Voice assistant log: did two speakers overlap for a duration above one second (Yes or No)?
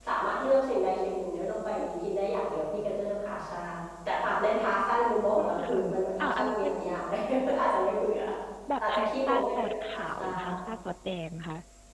Yes